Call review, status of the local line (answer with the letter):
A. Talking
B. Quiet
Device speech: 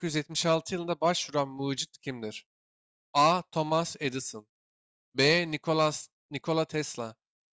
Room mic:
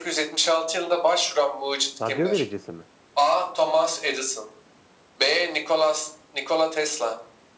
A